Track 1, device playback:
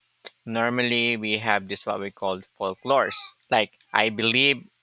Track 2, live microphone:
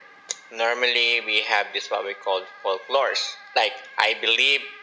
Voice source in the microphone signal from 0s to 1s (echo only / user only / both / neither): echo only